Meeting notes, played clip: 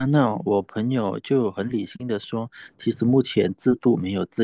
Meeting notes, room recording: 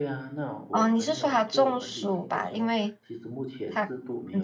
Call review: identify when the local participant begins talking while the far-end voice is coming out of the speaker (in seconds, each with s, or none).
0.7 s